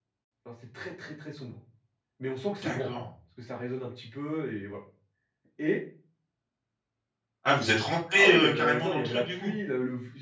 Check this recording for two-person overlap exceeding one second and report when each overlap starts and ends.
8.1-9.5

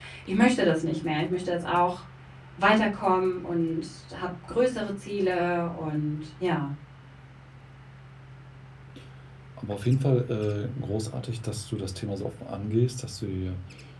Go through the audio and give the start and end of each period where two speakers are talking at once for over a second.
none

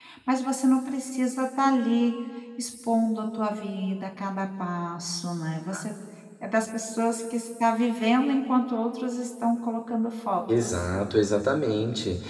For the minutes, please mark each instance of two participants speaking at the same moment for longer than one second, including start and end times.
none

